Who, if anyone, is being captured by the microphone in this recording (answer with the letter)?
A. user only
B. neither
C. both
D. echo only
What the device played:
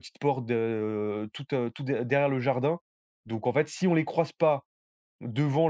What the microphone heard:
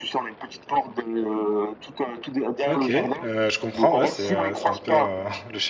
C